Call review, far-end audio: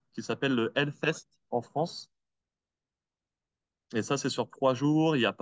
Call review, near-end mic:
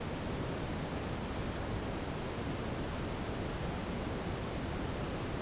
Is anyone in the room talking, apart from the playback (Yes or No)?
No